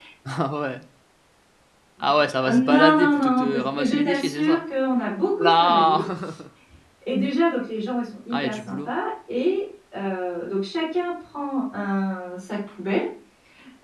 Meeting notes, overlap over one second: present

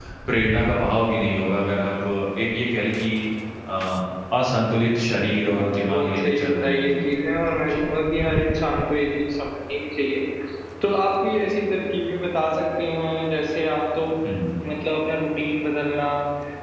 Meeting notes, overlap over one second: present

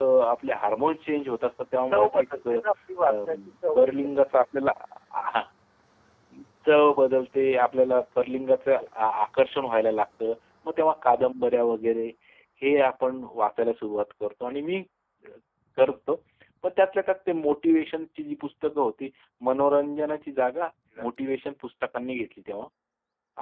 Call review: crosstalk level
present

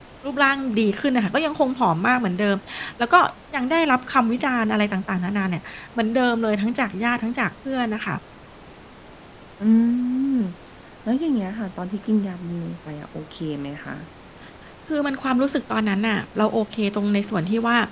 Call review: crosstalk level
none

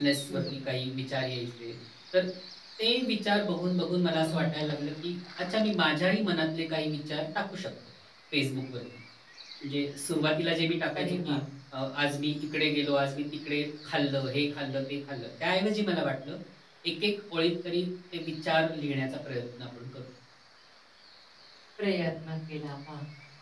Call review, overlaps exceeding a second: none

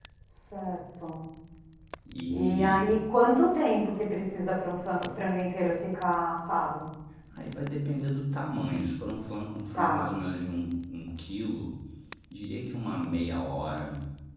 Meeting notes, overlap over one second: none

